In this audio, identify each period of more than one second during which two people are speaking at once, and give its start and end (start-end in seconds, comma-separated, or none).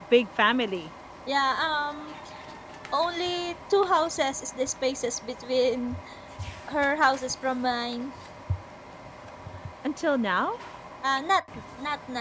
none